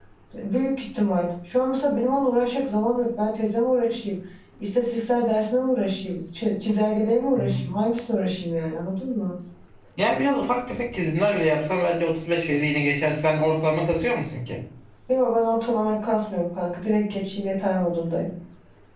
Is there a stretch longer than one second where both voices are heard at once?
No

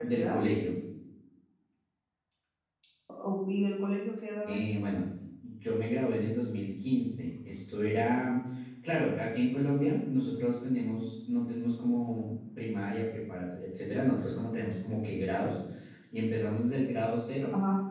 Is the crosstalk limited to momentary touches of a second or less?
Yes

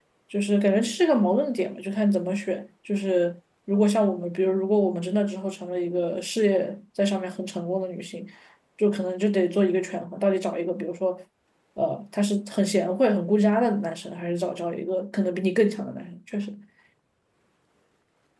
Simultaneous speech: No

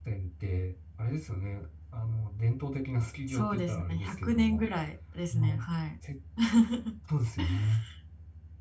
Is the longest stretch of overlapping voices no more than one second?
No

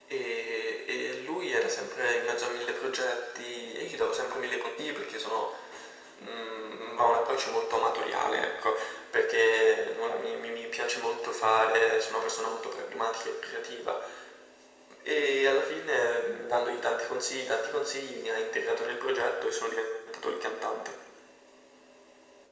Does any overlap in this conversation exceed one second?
No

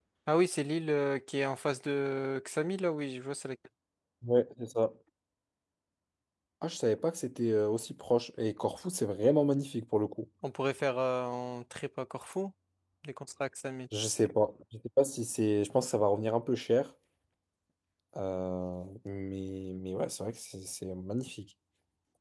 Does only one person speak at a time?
Yes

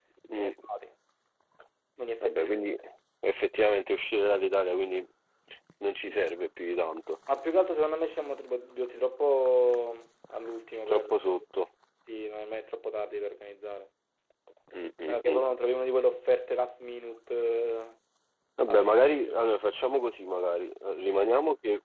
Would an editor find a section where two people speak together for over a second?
No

